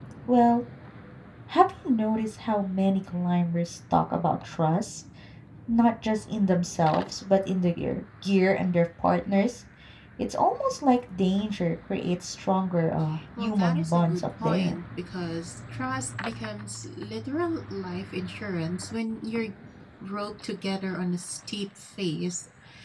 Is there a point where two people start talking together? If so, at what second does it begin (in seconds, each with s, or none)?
13.3 s